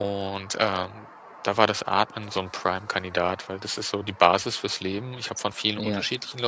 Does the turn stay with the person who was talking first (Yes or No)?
Yes